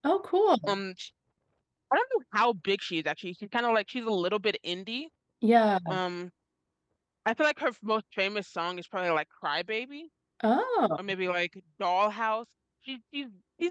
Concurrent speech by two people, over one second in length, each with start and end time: none

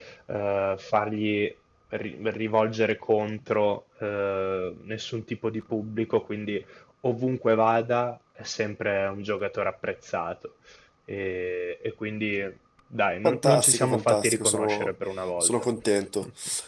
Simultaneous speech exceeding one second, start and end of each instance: 13.2-14.9

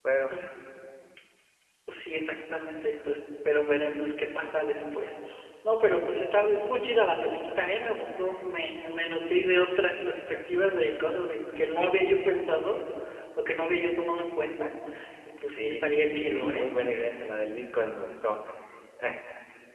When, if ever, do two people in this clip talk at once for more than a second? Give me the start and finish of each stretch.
15.4-16.6

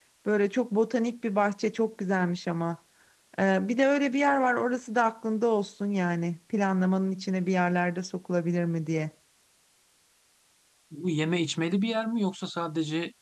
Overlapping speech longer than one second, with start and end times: none

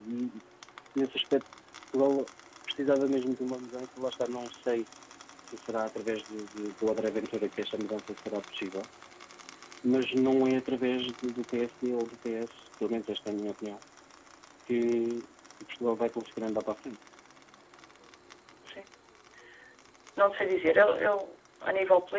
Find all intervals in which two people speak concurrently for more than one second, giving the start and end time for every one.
none

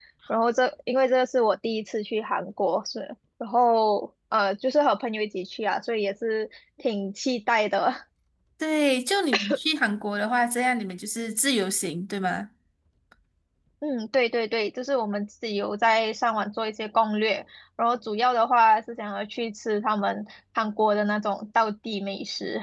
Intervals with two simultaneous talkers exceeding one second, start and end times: none

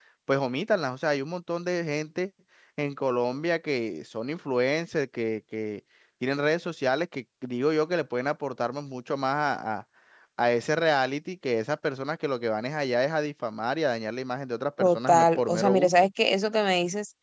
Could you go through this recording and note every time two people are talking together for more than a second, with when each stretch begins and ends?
14.8-16.1

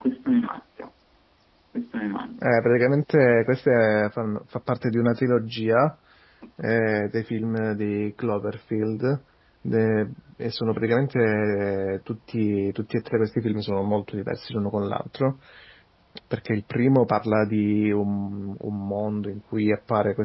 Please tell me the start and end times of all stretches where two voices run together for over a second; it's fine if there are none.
none

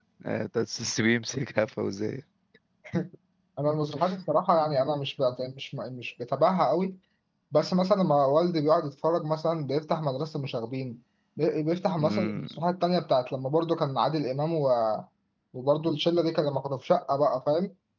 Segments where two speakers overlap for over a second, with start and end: none

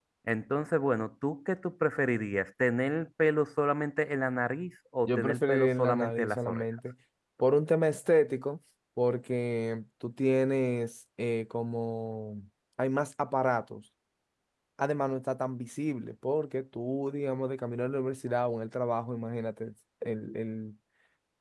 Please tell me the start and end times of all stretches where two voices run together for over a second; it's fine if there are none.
5.1-6.6

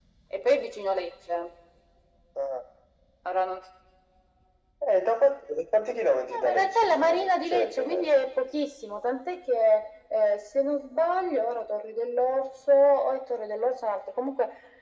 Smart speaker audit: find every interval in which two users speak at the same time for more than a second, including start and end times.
6.3-8.2

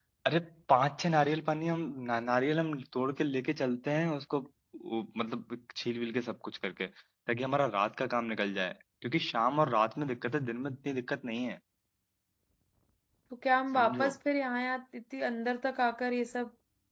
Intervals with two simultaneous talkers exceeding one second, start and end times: none

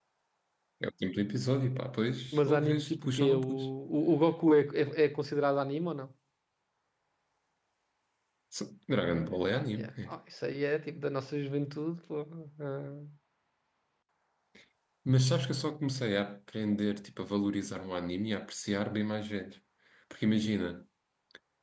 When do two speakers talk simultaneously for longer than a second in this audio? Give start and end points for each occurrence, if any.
2.3-3.7

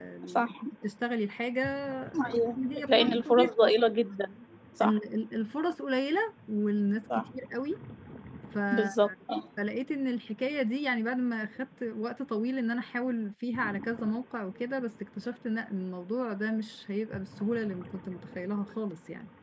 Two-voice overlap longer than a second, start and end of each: 2.3-3.7

